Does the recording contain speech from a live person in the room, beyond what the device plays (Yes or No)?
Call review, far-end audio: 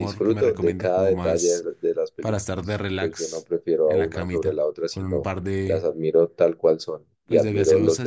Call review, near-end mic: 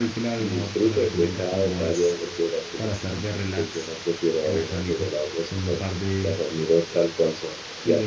No